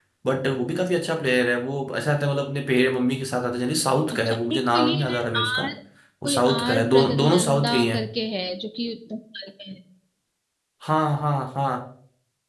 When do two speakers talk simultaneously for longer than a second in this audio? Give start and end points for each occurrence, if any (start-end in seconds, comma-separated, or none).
4.1-5.6, 6.2-8.1